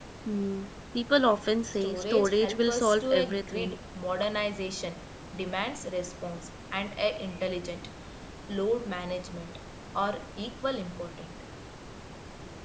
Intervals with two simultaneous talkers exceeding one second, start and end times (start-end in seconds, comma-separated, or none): 1.8-3.8